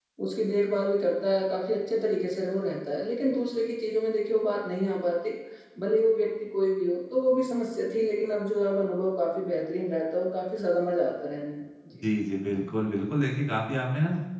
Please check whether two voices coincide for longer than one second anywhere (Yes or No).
No